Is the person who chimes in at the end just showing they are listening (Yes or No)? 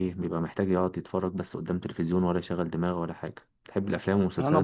No